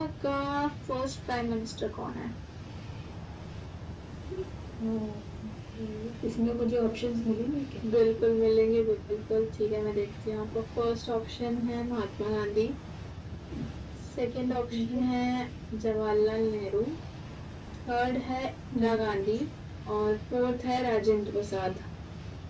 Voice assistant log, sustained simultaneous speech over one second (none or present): none